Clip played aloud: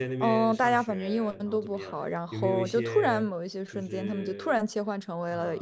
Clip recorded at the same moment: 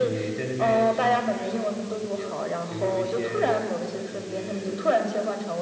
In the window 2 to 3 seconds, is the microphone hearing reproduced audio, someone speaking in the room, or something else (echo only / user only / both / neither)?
echo only